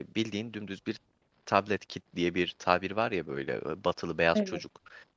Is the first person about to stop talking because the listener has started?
No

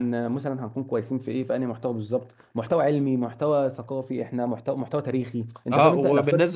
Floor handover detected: Yes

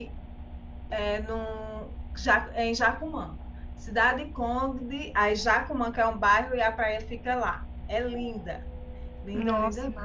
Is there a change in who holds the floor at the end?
Yes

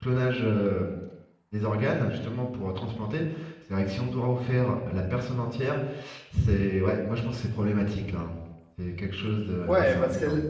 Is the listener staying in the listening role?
No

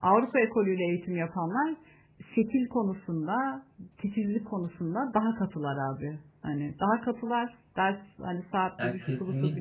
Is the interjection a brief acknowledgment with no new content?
Yes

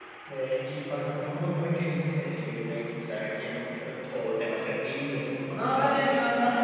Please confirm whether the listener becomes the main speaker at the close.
Yes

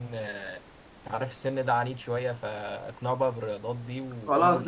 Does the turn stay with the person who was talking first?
No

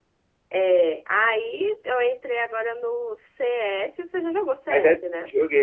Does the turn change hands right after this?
Yes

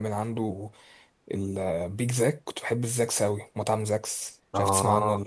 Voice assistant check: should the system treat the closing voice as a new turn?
Yes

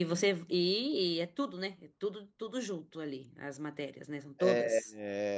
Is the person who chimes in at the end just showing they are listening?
No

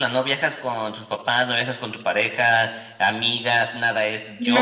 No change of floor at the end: No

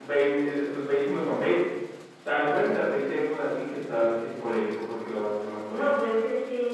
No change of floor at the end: No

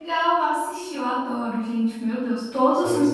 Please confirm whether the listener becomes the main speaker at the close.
No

